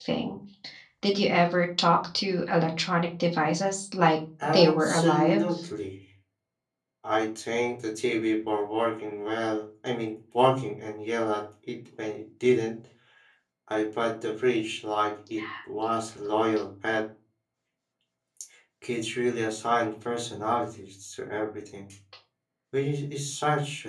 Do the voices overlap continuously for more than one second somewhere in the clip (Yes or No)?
Yes